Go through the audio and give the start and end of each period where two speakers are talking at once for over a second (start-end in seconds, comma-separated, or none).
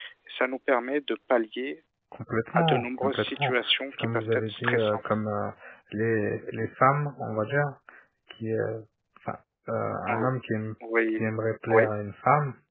2.5-5.0